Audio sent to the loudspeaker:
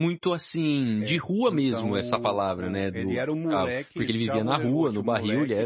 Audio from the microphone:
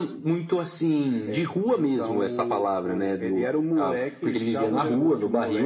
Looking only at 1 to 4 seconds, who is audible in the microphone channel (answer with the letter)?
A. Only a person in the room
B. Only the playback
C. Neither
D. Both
B